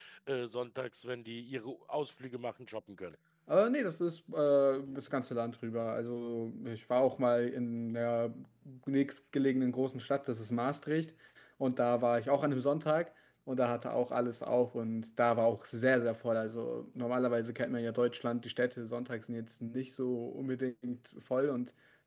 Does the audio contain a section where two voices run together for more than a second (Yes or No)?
No